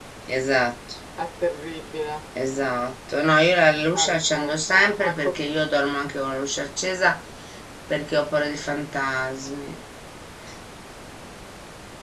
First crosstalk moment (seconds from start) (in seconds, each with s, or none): 3.9 s